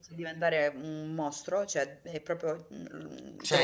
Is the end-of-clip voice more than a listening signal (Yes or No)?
Yes